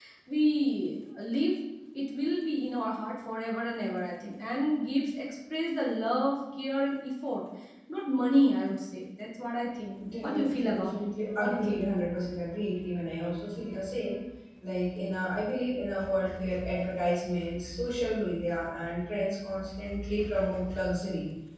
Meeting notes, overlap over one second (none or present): present